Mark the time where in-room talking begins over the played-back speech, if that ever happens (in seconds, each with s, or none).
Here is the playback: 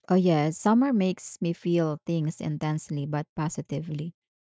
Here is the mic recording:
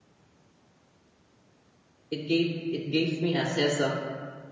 2.1 s